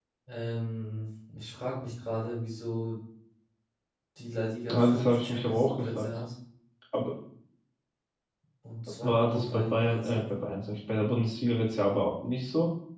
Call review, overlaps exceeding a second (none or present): present